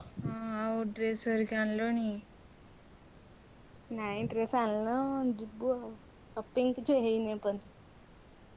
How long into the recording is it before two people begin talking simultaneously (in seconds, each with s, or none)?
none